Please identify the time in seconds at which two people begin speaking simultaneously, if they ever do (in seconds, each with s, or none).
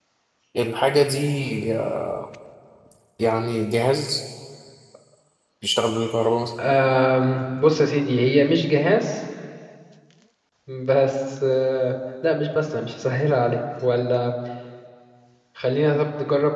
none